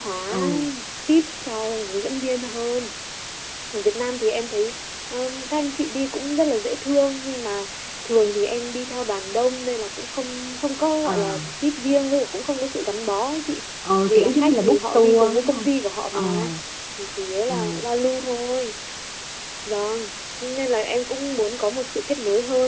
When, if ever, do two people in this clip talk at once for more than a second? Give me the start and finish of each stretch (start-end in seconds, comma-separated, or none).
14.1-15.7